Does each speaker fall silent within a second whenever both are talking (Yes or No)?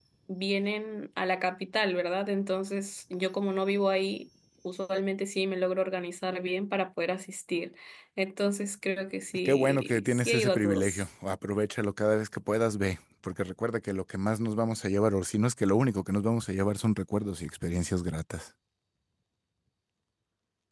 No